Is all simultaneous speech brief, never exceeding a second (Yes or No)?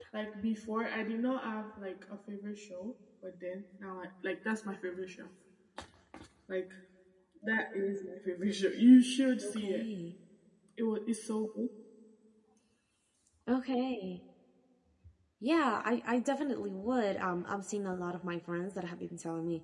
Yes